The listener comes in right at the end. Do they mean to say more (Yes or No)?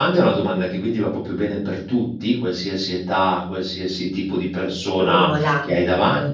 No